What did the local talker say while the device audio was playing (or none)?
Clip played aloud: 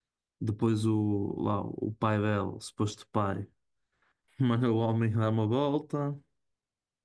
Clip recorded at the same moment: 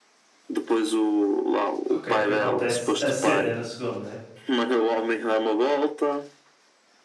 Ok, que acontece a cena na segunda, né?